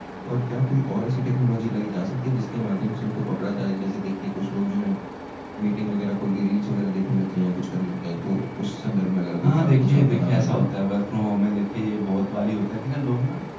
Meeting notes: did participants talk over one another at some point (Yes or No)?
Yes